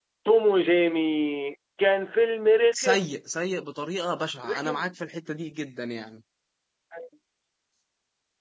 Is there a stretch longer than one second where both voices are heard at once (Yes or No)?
No